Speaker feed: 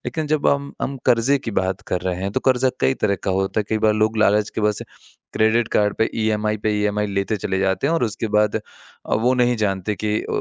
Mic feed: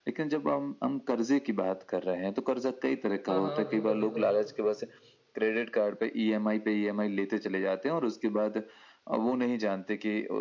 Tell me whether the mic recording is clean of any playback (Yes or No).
No